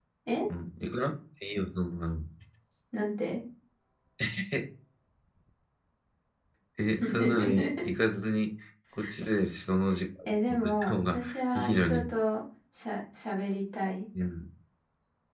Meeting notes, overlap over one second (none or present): present